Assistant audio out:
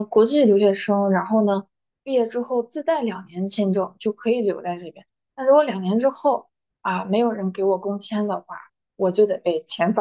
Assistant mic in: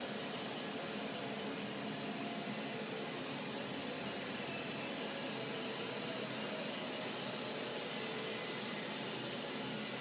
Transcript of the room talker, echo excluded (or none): none